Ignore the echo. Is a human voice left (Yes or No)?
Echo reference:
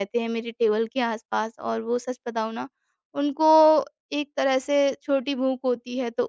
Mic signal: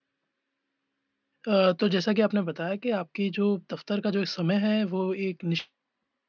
Yes